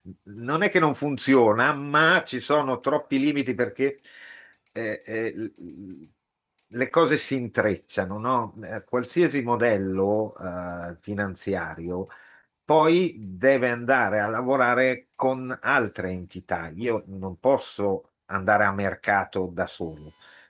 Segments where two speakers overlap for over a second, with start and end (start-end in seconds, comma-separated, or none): none